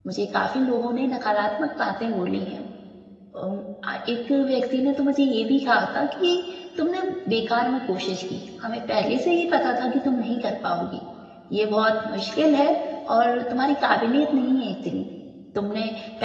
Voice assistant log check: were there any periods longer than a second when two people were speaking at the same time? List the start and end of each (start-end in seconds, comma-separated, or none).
none